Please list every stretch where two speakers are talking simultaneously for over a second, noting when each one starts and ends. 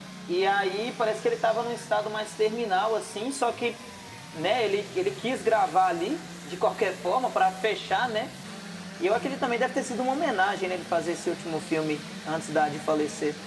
none

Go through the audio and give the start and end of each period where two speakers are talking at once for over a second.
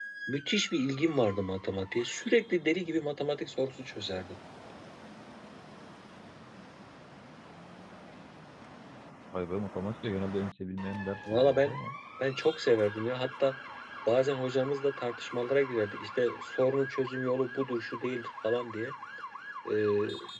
none

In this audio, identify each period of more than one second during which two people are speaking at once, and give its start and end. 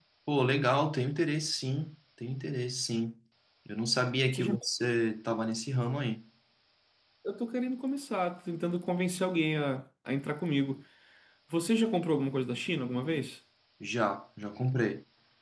none

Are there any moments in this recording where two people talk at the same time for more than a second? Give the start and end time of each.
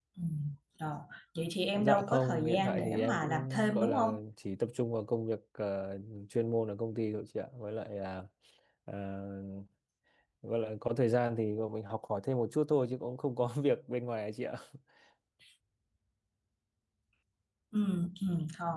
1.8-4.2

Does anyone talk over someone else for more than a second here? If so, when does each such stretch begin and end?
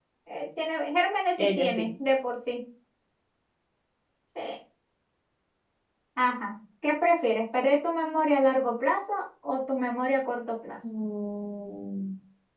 none

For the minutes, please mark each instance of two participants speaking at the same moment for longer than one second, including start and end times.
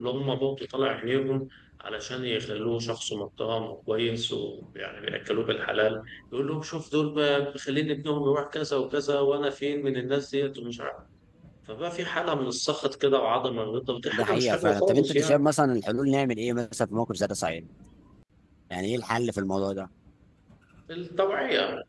14.1-15.4

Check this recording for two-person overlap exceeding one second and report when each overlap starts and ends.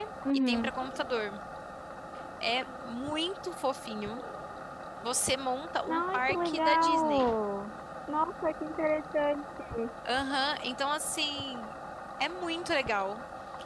5.9-7.3

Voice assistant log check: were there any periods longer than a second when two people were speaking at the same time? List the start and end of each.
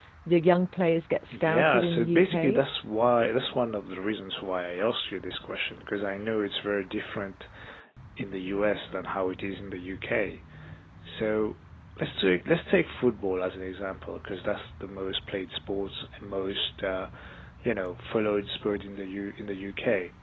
1.3-2.6

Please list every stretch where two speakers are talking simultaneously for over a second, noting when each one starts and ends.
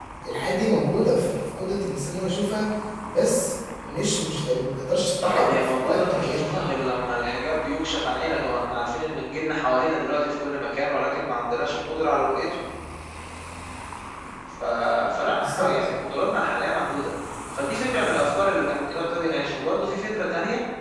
5.2-6.5

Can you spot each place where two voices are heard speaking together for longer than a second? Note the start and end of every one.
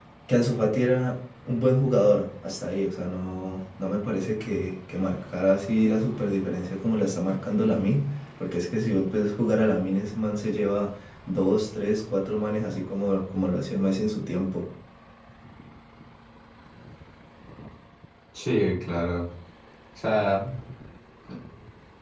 none

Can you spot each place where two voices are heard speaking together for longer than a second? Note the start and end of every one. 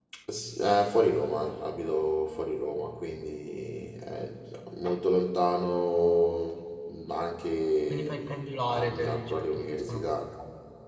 8.7-10.1

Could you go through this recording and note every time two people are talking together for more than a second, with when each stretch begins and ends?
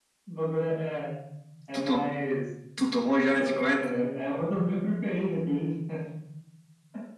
none

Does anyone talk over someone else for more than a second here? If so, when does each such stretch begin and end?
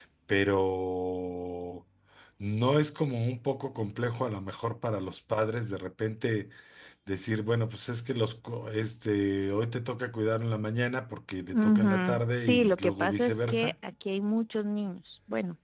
11.5-13.7

